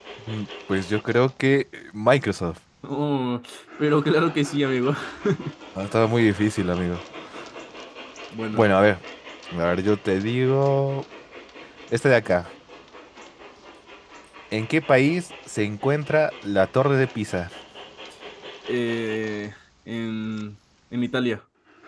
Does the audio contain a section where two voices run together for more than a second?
No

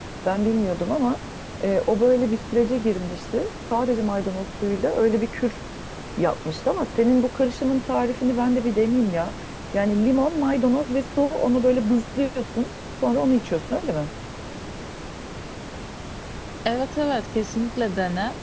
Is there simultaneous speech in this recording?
No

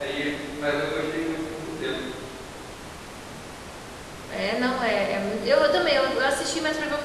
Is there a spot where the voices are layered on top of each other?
No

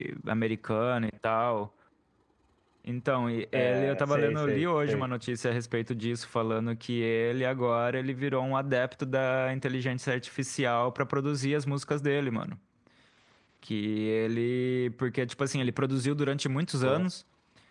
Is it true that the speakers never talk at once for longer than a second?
No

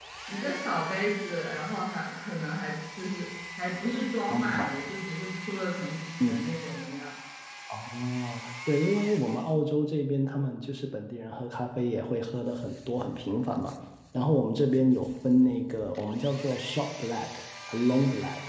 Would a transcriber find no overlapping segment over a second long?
Yes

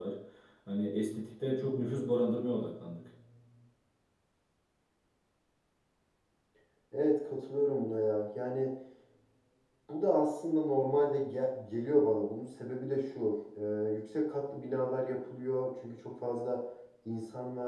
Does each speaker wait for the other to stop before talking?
Yes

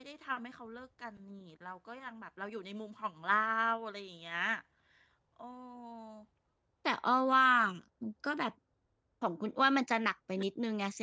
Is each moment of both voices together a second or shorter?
Yes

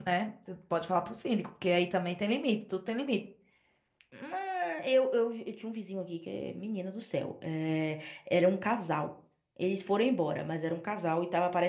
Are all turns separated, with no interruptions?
Yes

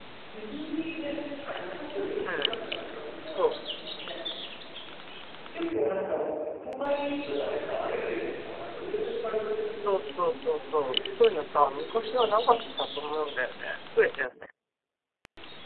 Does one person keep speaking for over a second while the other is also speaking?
Yes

